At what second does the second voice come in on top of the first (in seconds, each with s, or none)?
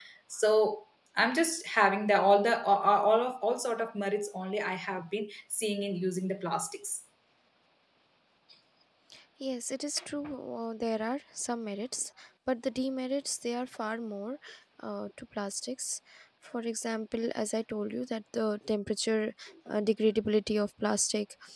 none